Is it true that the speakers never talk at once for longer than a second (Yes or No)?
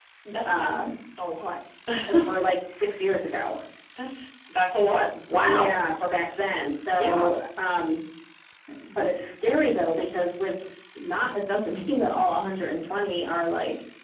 Yes